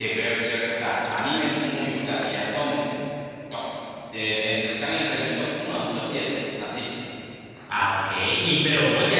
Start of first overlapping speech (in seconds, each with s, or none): none